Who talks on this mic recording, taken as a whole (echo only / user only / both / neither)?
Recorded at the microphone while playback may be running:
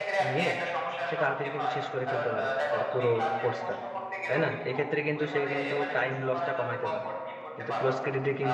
both